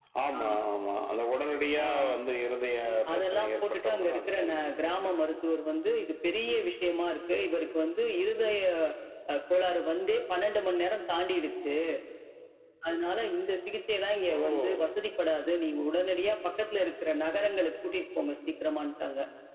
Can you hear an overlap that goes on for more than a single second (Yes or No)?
Yes